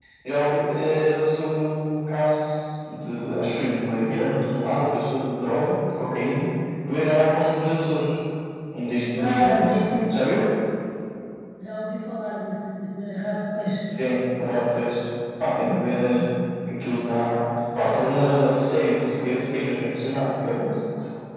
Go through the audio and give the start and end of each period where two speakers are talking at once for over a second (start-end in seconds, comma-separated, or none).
9.2-10.4